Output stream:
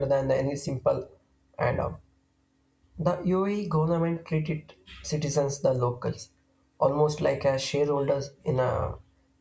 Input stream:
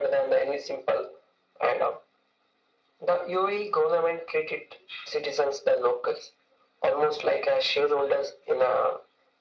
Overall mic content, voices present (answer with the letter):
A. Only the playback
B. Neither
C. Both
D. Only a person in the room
A